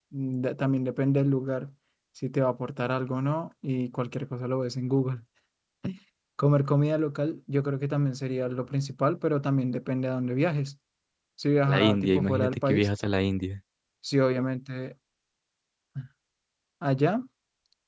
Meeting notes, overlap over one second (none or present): present